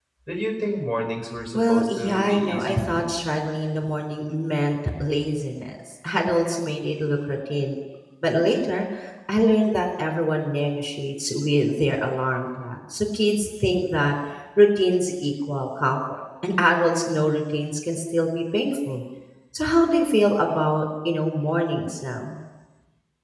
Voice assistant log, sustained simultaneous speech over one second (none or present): present